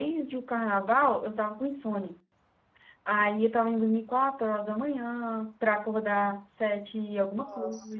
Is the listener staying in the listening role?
Yes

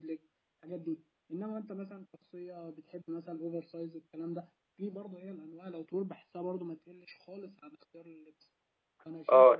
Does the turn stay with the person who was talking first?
No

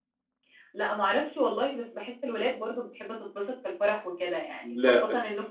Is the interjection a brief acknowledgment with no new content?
Yes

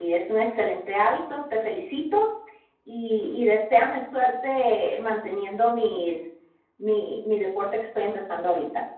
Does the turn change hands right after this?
Yes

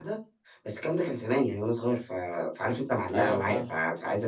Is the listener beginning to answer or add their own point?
No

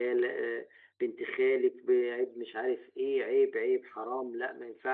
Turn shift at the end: No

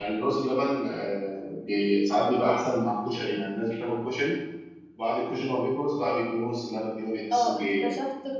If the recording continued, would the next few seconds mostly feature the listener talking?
Yes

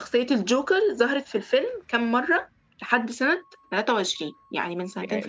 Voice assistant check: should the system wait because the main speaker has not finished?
No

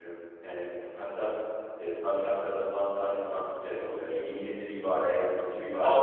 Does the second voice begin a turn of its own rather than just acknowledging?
Yes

